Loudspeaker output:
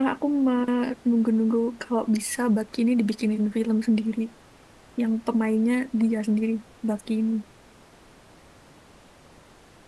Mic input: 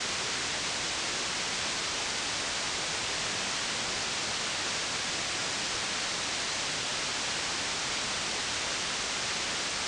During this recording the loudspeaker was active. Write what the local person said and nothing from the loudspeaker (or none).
none